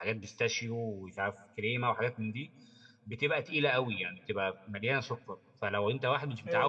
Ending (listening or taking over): listening